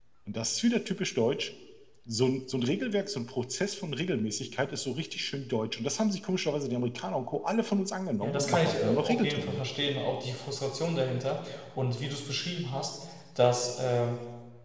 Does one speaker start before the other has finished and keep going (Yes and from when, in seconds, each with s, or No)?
Yes, from 8.2 s